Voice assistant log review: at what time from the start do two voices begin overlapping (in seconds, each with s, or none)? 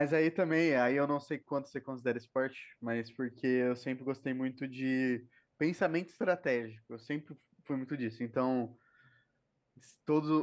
none